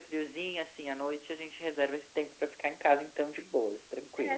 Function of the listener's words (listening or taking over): taking over